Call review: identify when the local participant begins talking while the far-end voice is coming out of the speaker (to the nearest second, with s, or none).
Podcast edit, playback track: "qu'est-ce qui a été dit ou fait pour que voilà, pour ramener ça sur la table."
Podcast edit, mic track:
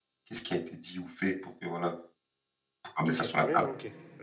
3 s